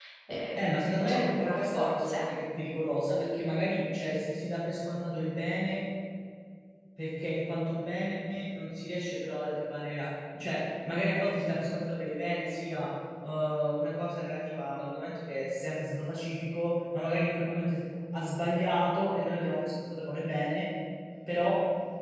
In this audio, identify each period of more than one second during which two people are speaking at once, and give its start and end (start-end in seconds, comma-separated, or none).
0.5-2.3